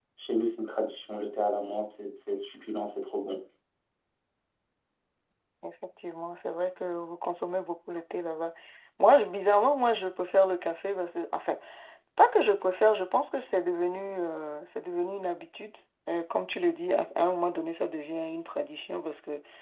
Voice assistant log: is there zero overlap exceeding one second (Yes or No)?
Yes